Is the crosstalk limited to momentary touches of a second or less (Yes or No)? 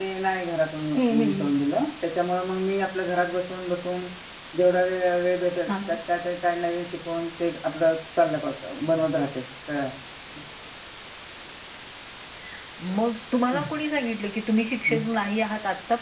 Yes